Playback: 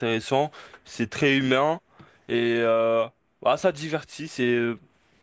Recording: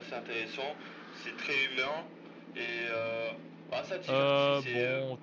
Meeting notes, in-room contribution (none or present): present